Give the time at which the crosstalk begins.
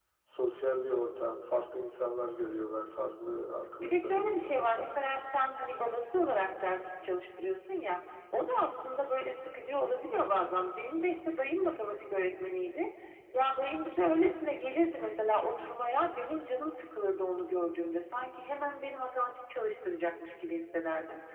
4 s

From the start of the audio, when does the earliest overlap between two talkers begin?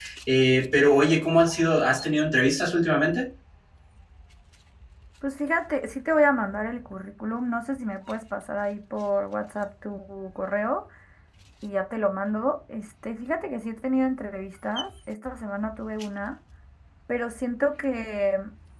none

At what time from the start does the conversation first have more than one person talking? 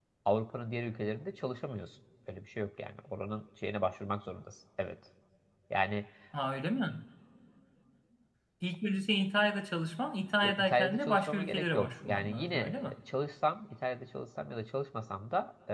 10 s

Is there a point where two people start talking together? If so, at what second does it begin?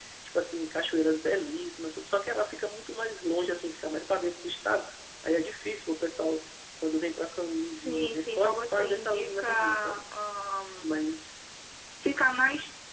8 s

